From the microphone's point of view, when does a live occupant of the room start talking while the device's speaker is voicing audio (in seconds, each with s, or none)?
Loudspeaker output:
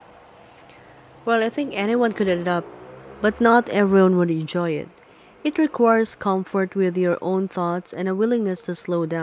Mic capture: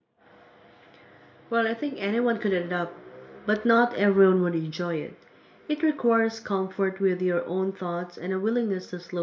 none